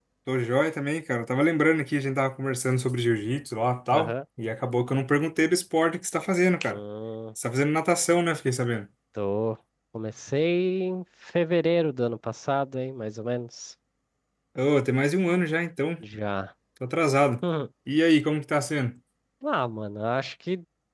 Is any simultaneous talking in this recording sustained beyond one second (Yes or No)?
No